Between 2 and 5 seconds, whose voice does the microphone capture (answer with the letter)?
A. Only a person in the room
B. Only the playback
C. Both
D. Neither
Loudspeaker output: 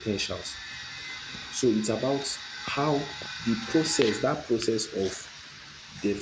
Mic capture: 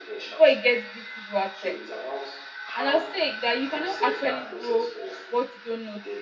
C